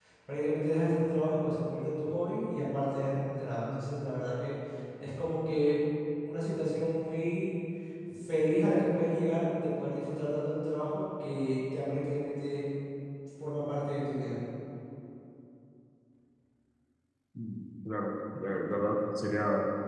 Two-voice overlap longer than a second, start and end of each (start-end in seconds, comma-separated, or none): none